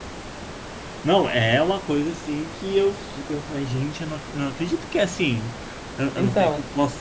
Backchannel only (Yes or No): Yes